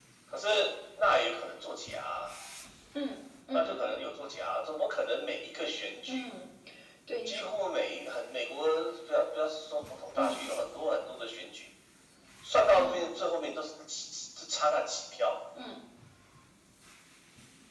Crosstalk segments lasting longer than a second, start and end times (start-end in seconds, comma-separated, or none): none